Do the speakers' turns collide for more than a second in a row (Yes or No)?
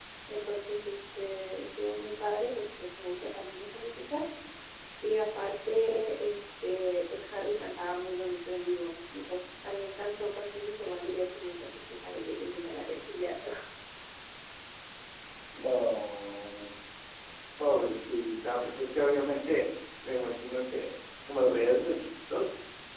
No